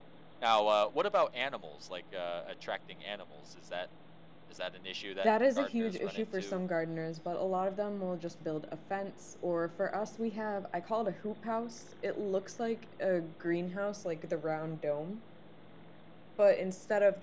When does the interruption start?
5.2 s

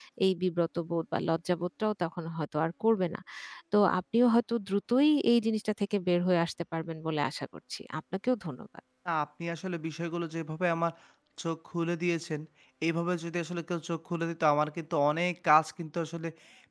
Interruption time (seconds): none

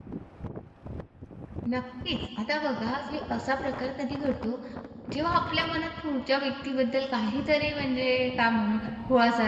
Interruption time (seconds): none

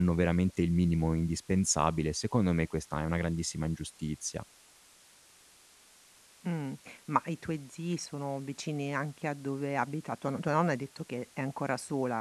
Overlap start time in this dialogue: none

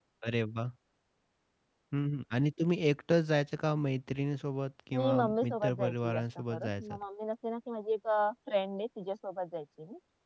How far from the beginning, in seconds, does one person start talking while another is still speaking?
4.9 s

